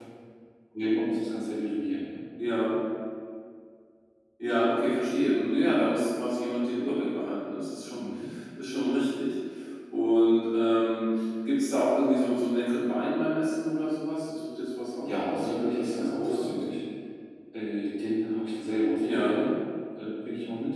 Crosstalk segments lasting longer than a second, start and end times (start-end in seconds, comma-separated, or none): 15.1-16.5